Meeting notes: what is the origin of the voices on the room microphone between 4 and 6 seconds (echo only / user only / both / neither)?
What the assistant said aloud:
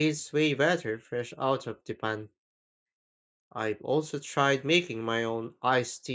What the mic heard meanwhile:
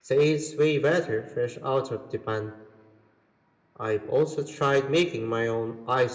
echo only